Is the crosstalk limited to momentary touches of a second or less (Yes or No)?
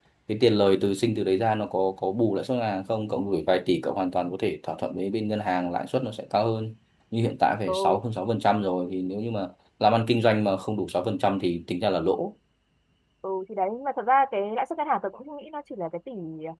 Yes